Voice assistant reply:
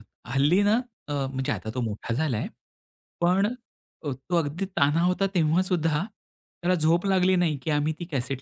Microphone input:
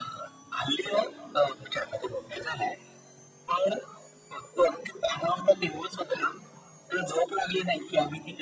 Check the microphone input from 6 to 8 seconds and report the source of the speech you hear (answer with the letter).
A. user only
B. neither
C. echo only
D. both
C